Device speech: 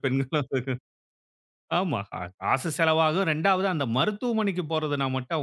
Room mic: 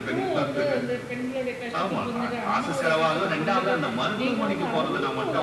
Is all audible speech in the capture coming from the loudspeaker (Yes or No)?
No